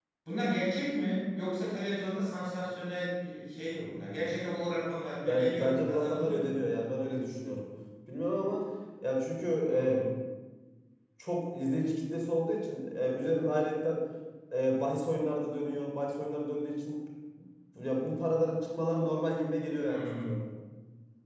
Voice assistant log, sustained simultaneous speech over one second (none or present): present